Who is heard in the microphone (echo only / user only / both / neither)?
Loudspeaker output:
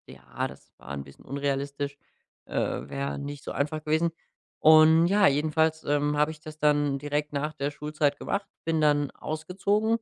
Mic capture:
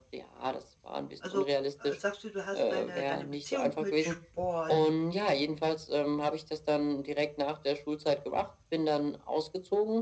both